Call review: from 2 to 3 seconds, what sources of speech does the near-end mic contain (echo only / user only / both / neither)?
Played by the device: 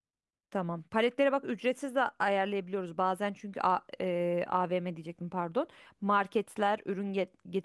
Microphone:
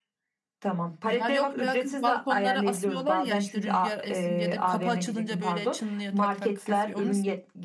both